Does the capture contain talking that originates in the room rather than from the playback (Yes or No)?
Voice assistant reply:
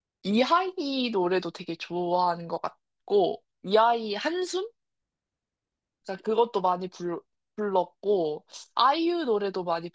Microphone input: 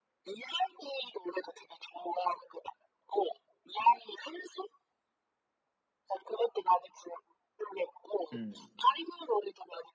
Yes